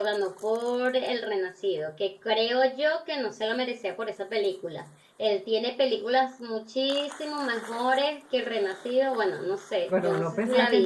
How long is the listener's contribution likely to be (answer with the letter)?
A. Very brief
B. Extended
B